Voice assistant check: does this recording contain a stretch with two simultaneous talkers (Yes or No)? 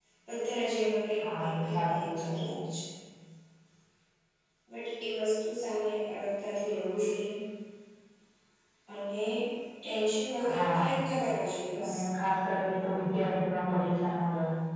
Yes